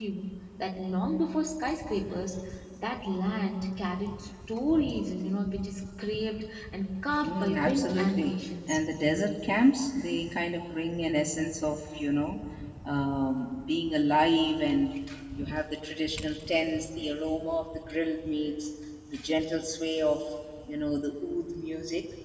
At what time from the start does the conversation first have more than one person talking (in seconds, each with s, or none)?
7.1 s